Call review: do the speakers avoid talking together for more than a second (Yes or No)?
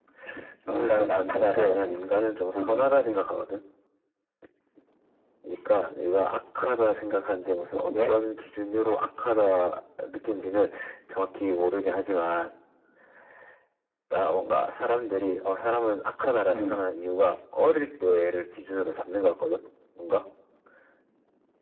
No